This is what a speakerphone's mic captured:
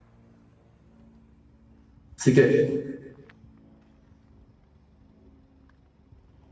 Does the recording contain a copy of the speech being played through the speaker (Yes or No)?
No